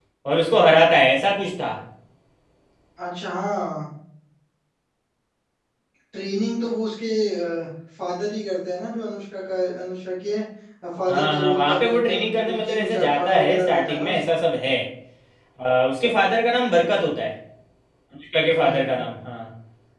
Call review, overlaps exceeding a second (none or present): present